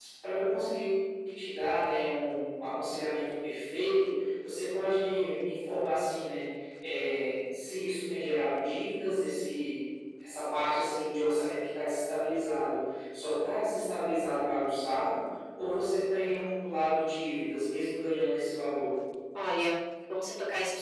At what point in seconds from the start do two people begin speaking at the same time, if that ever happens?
none

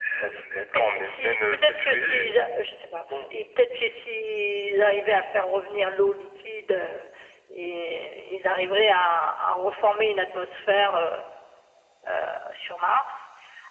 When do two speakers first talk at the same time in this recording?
0.8 s

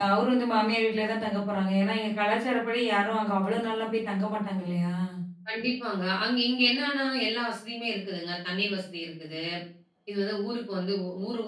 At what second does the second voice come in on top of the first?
none

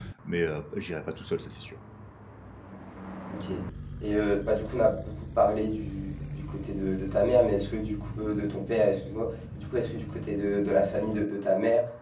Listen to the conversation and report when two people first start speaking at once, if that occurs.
none

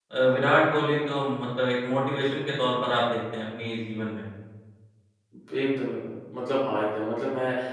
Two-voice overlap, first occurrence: none

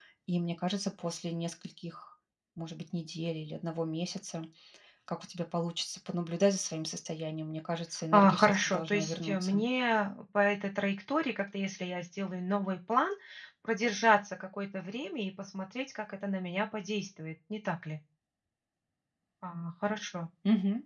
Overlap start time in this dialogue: 8.1 s

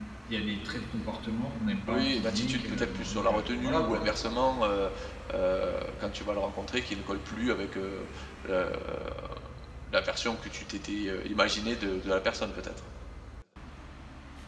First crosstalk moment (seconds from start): 1.9 s

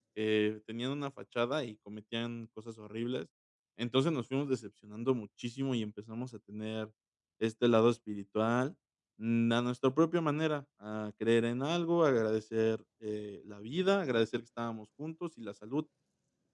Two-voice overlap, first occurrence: none

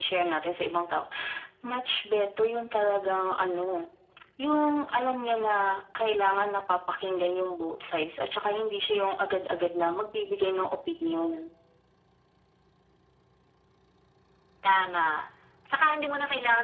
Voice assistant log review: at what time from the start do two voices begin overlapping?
none

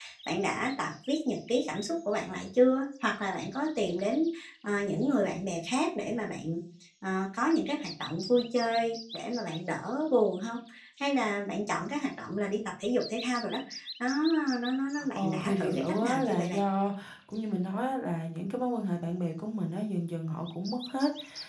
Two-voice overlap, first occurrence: 15.2 s

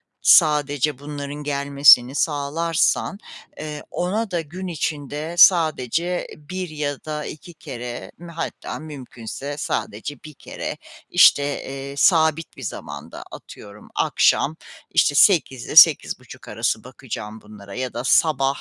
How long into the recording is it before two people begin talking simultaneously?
none

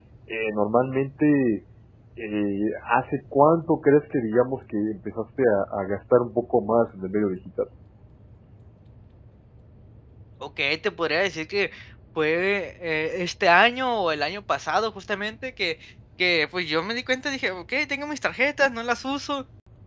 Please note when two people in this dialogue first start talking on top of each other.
none

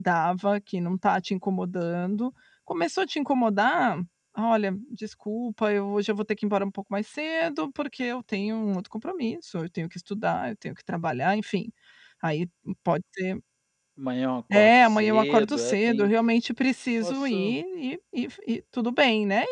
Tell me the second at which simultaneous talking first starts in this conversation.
14.5 s

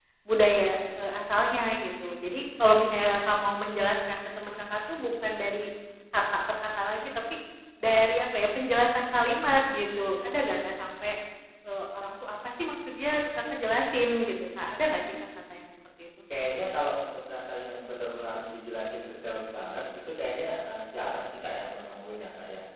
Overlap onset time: none

